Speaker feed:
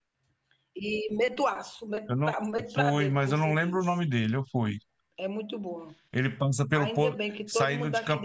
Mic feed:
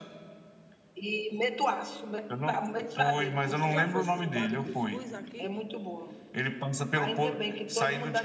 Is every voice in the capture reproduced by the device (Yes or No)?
No